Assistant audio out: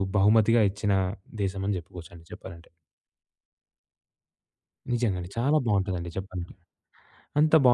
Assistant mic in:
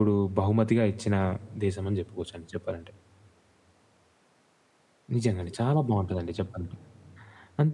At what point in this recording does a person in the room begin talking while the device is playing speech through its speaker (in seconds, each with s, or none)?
none